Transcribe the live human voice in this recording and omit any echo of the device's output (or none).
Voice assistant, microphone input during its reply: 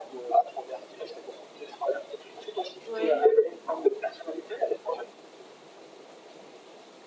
Oui.